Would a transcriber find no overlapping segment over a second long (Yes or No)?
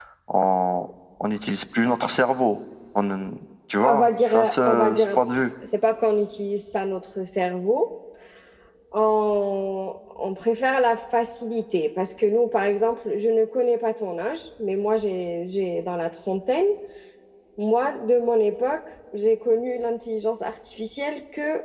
No